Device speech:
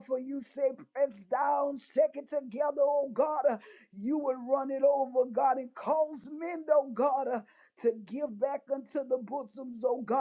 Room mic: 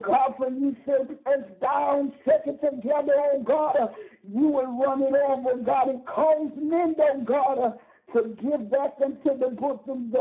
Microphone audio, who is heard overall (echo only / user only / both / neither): echo only